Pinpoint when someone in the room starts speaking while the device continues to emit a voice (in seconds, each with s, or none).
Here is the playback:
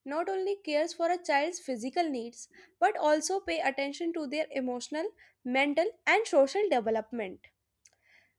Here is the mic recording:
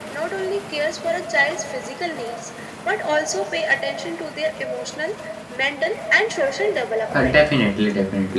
7.1 s